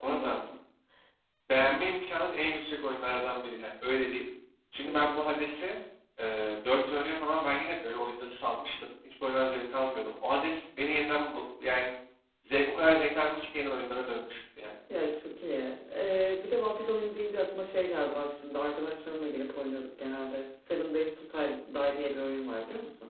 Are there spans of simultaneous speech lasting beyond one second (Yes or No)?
No